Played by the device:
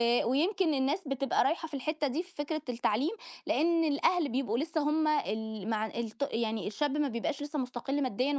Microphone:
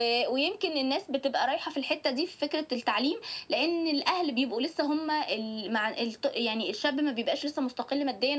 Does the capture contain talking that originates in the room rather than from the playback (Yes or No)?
No